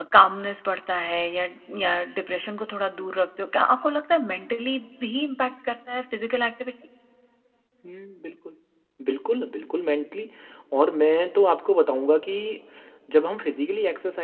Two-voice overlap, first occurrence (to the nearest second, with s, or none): none